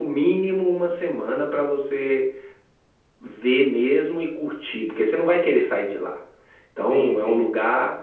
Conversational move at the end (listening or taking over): listening